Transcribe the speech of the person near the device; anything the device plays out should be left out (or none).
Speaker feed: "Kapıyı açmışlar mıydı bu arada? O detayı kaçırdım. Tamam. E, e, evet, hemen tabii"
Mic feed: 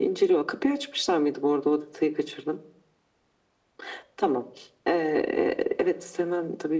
none